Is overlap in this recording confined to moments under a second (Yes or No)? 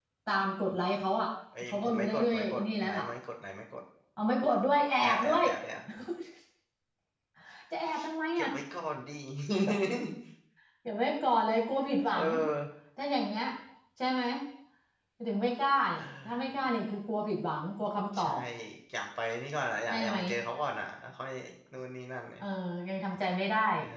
No